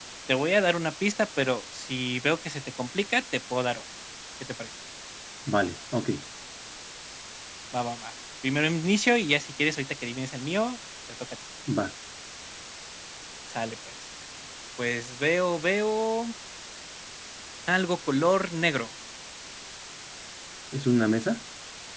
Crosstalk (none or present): none